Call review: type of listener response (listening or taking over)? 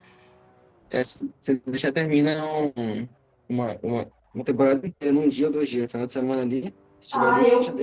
taking over